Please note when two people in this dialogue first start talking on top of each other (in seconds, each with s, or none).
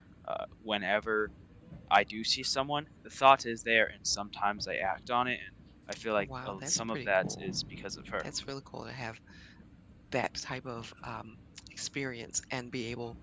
6.1 s